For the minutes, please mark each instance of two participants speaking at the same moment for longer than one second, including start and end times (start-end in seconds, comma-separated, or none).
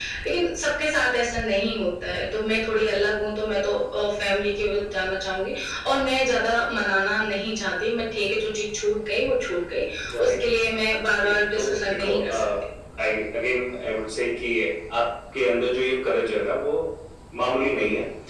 11.2-12.4